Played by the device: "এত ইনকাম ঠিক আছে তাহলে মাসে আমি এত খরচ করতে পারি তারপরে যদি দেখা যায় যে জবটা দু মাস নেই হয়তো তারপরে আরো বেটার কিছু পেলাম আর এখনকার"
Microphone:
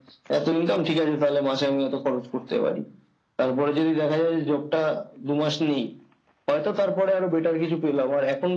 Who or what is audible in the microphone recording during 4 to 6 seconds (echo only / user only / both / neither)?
echo only